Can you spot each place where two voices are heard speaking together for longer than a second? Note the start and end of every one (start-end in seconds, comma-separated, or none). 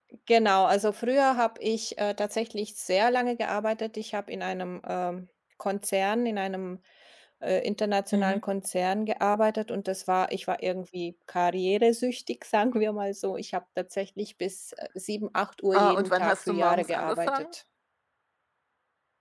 15.7-17.4